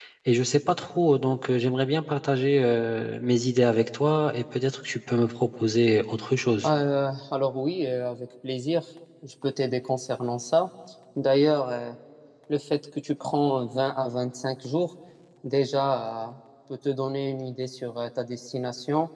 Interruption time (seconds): none

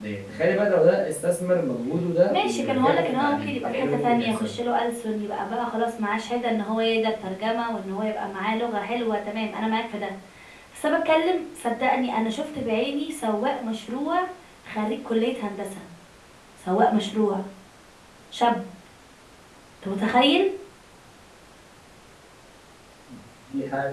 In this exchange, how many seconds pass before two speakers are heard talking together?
2 s

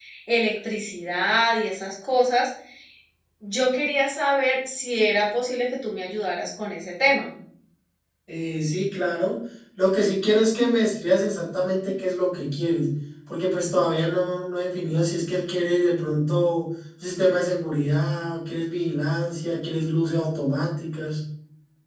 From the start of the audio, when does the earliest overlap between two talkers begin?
none

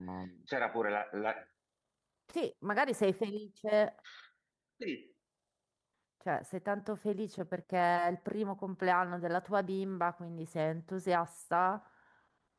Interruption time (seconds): none

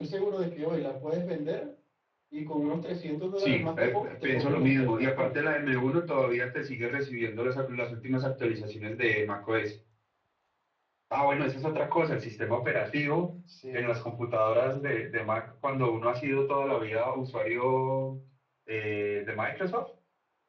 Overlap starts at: 3 s

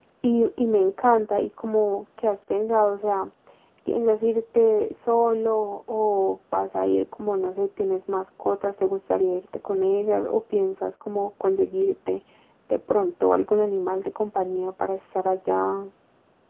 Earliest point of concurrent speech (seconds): none

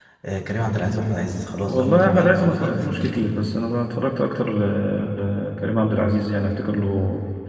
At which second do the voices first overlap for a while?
2 s

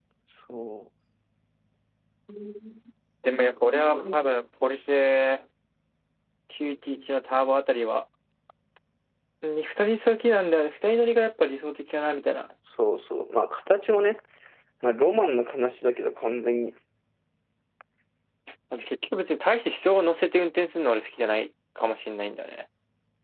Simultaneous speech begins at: none

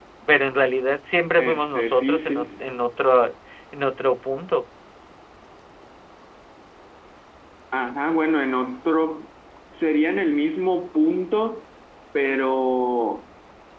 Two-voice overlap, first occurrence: 1 s

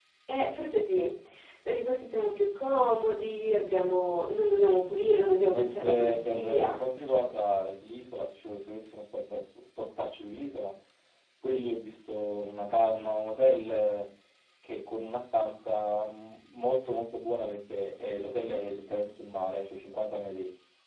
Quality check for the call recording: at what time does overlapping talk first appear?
6 s

